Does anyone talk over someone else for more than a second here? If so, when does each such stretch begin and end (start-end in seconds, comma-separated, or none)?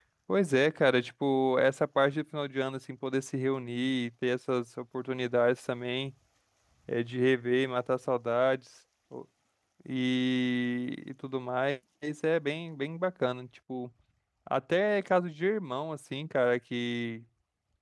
none